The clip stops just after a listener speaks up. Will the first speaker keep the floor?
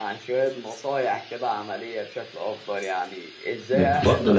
No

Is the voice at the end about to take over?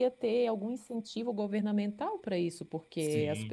No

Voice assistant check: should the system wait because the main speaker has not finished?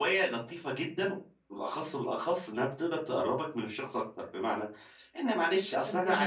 Yes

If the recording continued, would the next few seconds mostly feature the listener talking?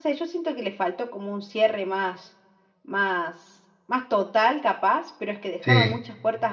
No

